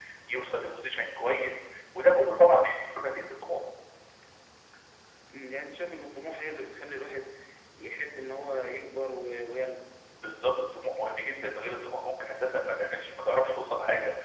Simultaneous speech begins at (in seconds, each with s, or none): none